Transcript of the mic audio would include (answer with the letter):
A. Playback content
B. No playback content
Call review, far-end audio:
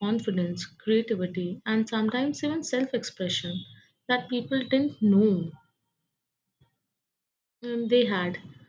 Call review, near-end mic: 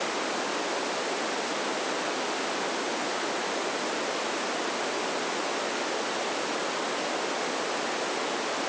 B